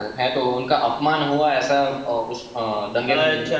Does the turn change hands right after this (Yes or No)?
Yes